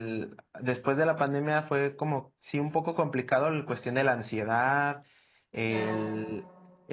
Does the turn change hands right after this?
No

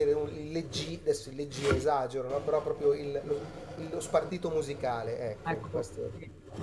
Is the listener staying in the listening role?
No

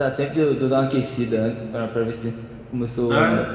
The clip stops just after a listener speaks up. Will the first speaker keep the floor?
Yes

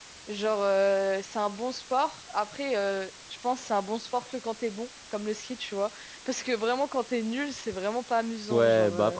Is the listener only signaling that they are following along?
No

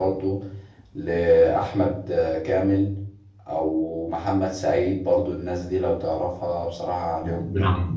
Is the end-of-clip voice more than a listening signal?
Yes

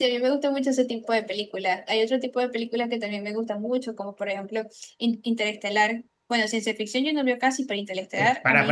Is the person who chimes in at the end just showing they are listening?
No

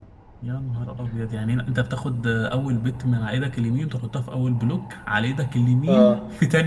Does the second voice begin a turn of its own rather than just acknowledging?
Yes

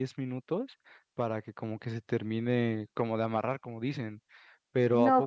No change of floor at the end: No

